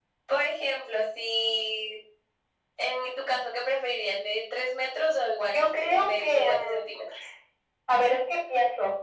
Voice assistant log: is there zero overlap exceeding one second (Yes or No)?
No